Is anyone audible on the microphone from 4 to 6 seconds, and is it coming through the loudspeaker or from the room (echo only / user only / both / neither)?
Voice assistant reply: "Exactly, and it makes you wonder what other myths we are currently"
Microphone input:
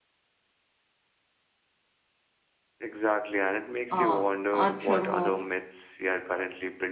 both